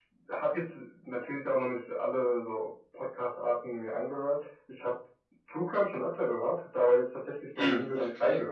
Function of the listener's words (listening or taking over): listening